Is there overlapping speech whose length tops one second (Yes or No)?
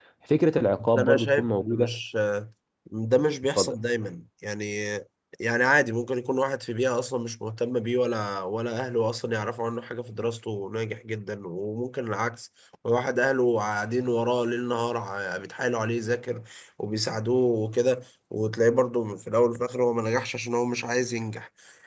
Yes